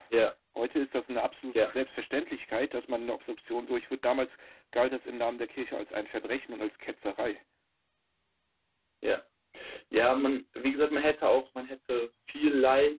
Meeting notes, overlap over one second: none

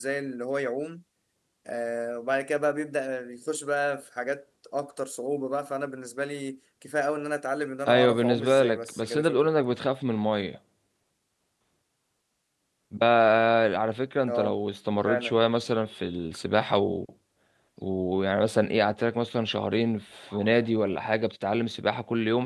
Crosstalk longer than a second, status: present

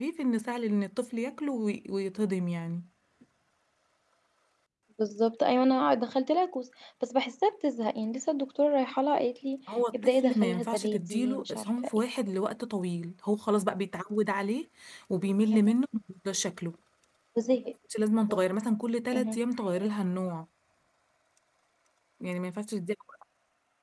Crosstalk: present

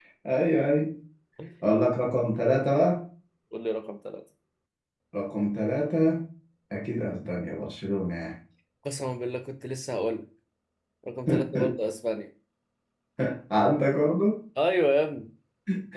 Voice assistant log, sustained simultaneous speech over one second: none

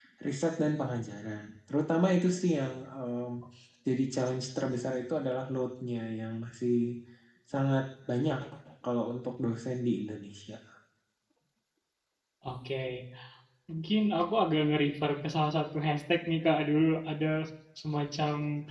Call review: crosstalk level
none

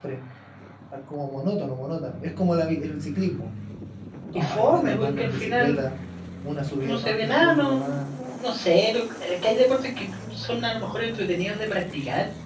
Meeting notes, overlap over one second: present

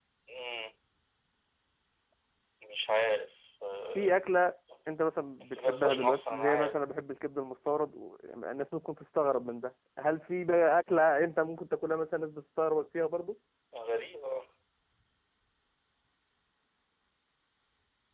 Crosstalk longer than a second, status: present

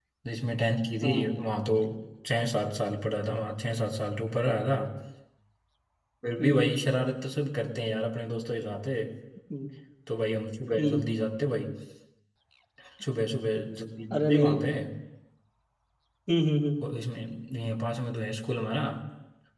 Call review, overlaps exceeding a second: none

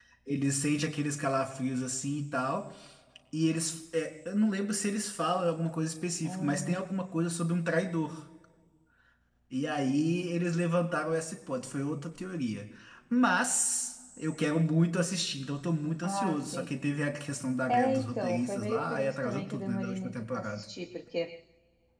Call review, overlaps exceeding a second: present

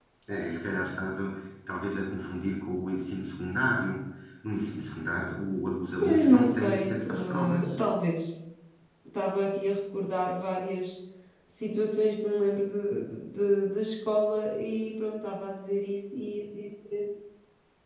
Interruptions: present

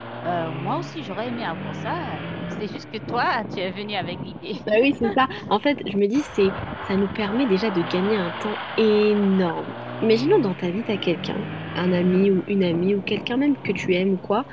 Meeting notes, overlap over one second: none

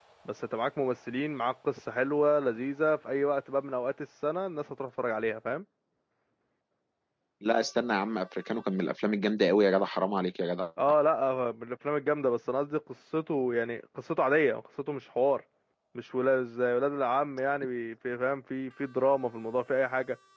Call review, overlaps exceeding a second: none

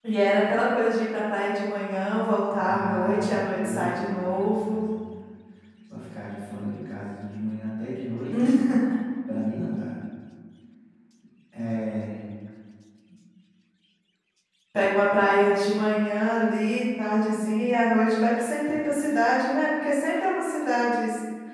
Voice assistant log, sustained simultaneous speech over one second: present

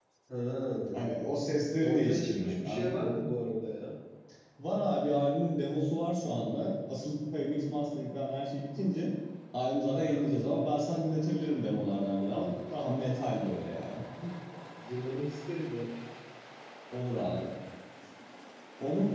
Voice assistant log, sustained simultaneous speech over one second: present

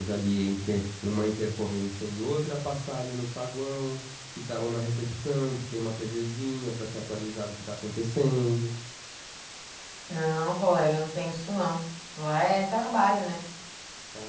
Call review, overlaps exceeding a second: none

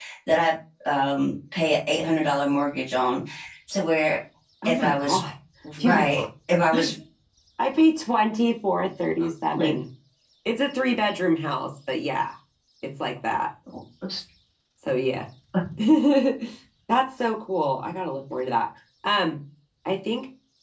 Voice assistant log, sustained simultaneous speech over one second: none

